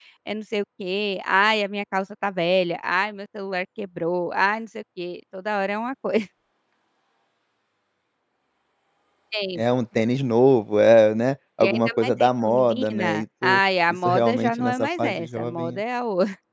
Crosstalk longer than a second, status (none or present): present